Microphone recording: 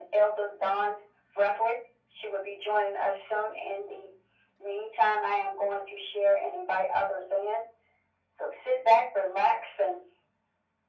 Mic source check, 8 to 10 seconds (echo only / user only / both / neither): echo only